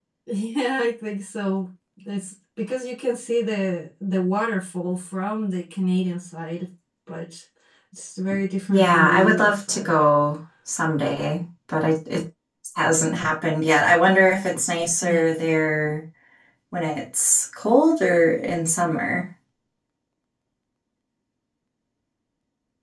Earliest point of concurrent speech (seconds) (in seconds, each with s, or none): 8.7 s